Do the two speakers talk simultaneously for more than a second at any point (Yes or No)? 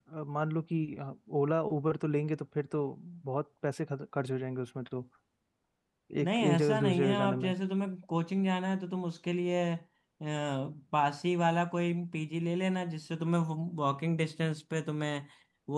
Yes